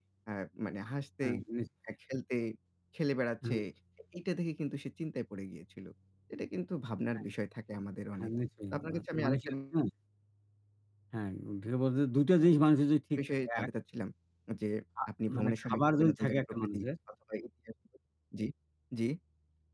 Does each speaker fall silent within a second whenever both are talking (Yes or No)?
No